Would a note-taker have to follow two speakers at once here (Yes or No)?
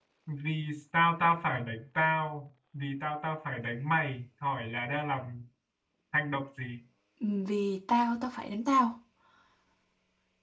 No